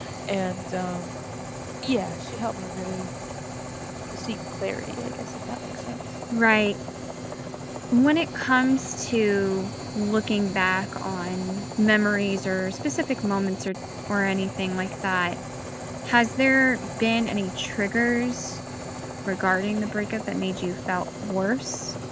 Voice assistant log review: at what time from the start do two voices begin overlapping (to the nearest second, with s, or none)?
none